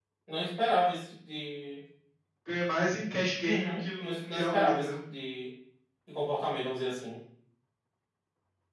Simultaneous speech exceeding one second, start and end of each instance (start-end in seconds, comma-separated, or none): 3.5-4.9